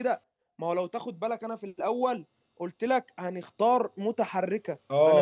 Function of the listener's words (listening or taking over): taking over